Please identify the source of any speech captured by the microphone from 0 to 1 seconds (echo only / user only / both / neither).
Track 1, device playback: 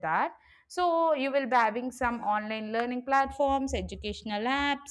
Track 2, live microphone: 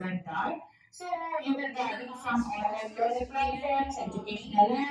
echo only